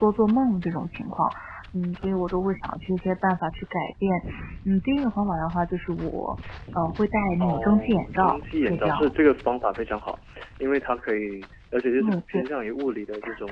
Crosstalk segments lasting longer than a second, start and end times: 7.4-9.1

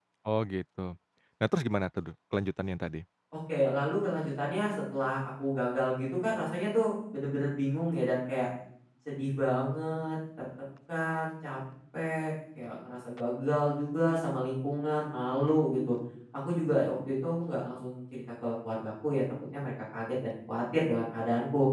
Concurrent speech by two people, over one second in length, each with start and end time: none

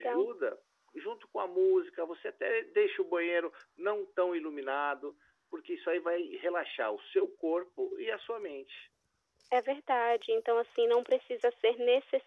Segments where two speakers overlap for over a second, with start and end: none

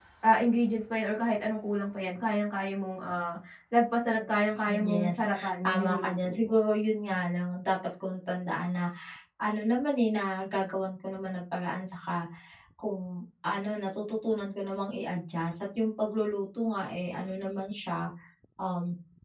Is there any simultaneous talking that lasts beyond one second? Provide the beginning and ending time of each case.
4.7-6.5

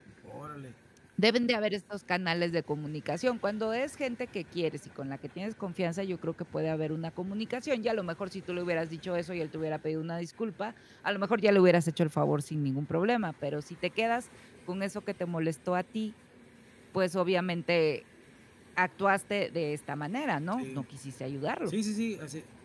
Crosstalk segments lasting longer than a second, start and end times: none

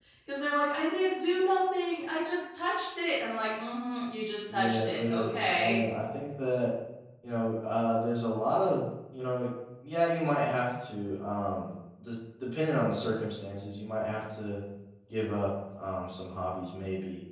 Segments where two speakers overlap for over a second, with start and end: 4.5-5.7

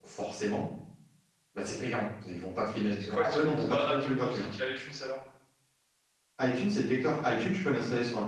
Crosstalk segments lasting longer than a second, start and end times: 3.0-4.5

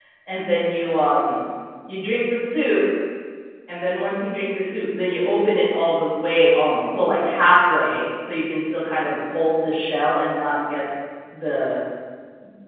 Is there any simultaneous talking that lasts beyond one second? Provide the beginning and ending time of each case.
none

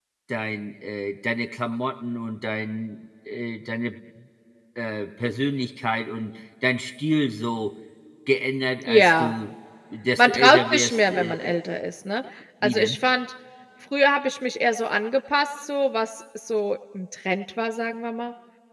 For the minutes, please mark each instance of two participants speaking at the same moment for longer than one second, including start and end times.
10.2-11.6

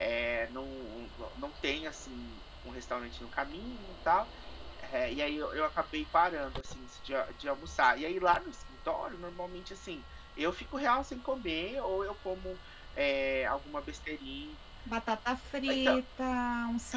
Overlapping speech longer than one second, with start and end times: none

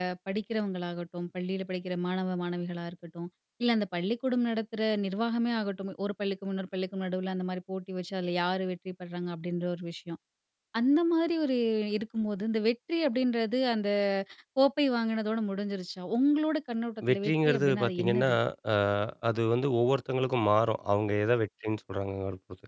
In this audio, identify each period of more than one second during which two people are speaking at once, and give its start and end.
17.1-18.3

